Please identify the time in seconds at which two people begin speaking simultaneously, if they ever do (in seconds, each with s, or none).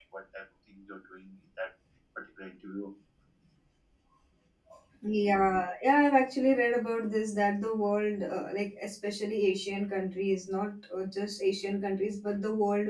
none